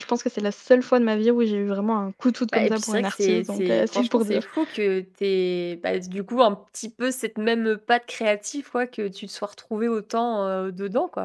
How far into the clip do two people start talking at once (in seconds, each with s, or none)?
2.5 s